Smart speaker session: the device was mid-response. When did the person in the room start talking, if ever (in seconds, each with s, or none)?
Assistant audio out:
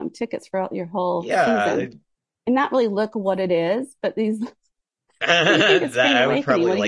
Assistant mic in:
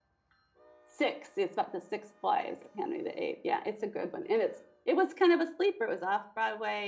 0.8 s